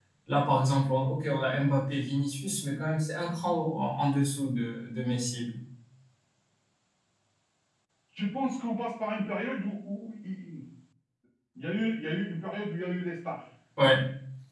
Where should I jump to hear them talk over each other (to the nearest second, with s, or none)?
none